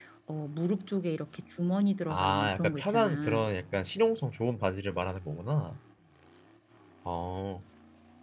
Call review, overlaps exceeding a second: present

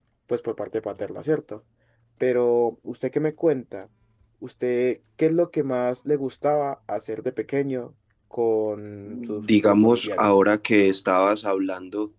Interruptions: present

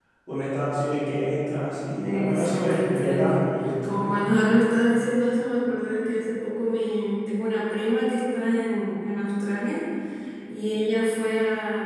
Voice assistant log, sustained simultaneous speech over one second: present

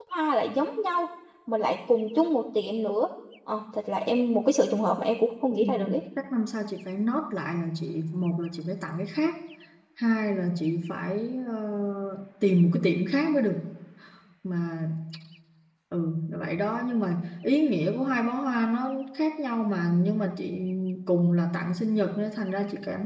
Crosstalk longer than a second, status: none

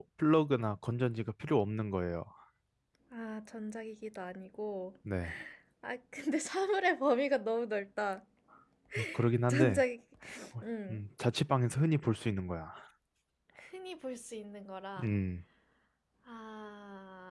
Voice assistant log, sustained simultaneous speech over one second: none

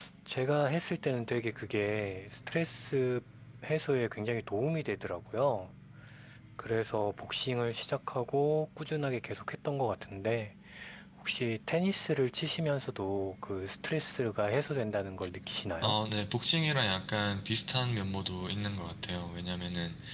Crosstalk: none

